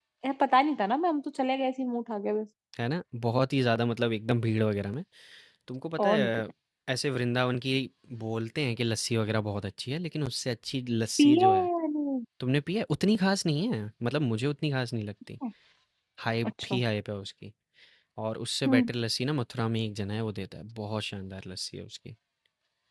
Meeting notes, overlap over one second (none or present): none